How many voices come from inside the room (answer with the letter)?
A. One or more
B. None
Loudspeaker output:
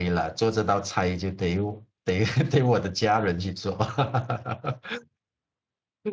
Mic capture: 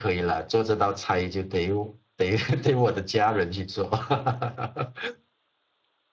B